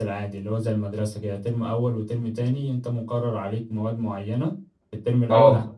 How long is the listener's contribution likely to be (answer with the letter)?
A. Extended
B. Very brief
B